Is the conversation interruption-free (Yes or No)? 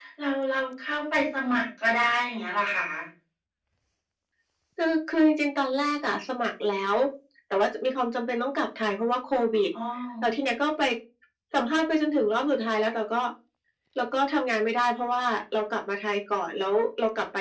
Yes